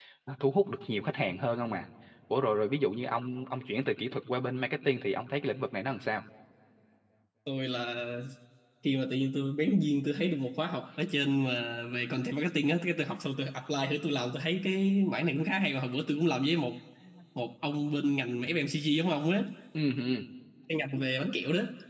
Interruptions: none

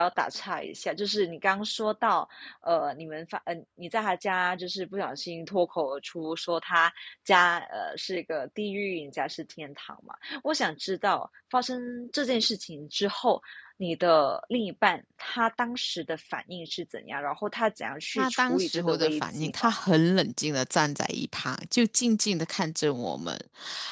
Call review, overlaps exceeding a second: present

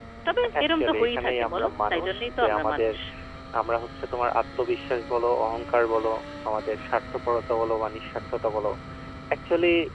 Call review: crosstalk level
present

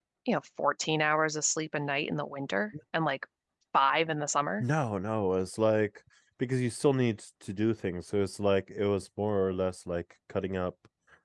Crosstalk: none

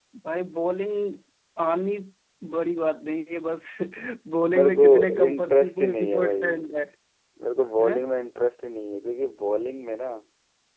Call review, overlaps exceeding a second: present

